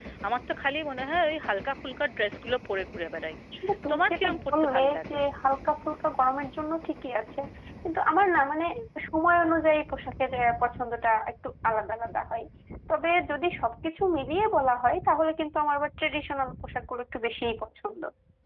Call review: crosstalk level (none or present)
present